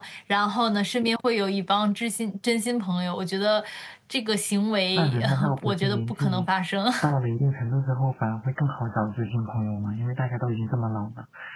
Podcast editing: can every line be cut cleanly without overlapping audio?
No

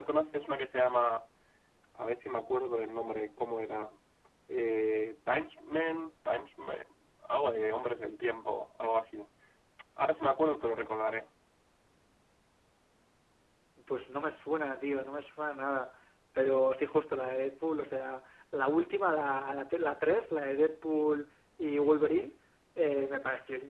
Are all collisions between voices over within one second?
Yes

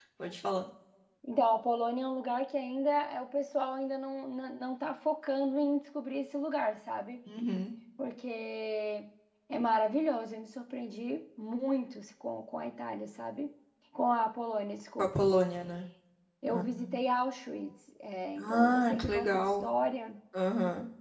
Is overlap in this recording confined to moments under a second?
No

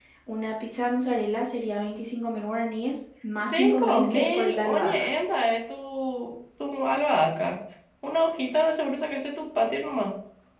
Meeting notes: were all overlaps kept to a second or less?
No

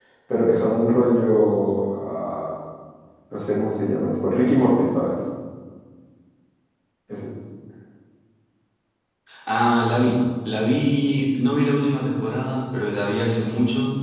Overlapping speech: No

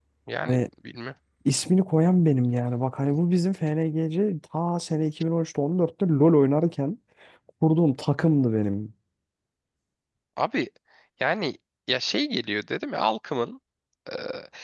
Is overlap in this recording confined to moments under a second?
Yes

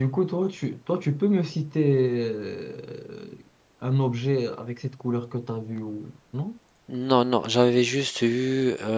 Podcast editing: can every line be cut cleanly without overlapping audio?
Yes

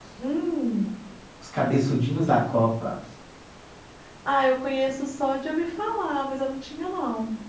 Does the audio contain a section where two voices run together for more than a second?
No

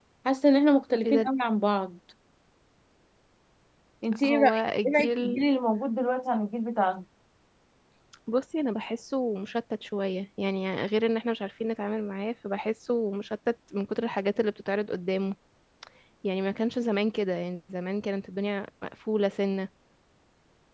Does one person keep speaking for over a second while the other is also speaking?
Yes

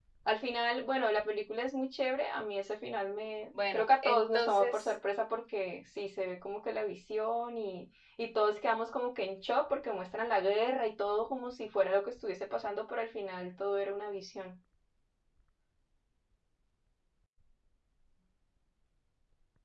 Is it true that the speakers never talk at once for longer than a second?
No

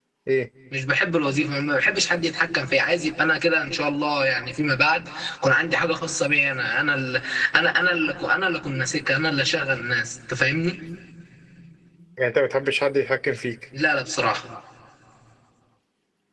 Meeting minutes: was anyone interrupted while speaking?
No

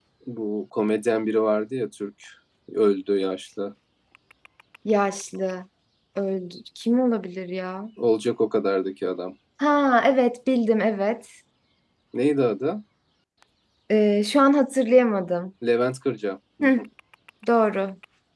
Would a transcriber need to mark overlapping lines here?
No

